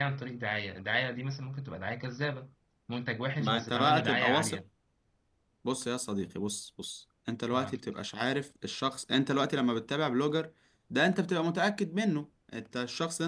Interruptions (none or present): present